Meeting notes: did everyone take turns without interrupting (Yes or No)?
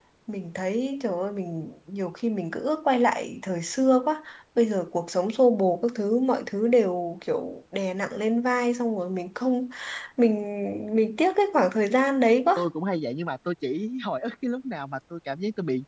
Yes